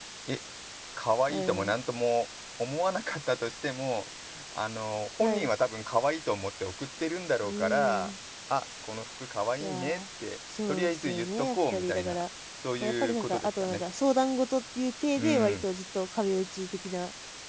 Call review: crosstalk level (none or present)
present